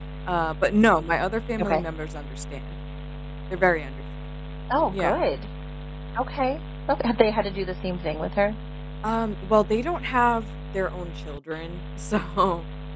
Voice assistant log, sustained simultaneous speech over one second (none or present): none